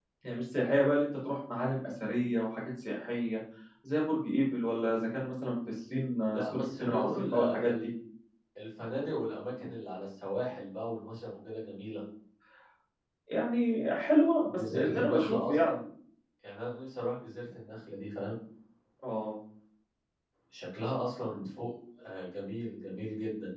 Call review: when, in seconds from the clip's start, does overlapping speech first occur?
6.3 s

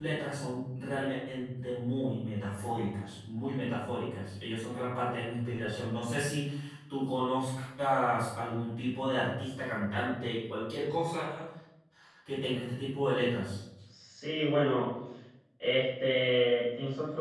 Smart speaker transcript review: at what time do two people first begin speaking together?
none

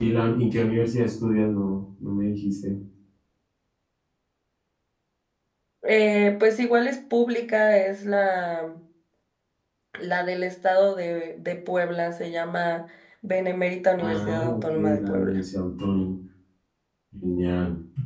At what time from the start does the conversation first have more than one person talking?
14.0 s

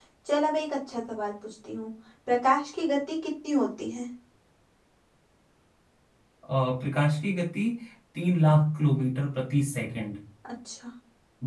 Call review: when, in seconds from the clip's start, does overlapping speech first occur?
none

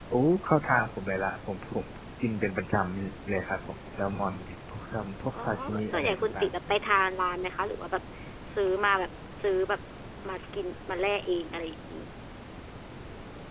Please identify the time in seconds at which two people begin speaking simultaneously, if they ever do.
5.3 s

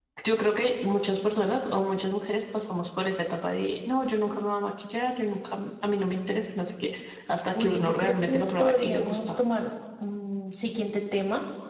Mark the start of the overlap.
7.5 s

